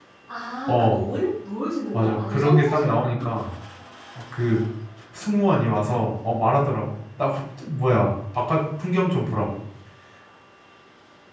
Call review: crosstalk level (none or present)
present